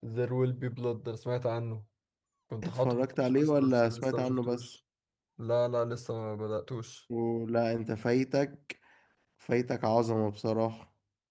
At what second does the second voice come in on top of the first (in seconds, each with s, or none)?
2.6 s